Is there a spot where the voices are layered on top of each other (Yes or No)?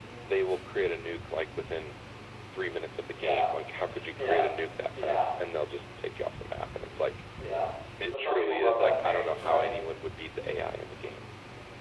Yes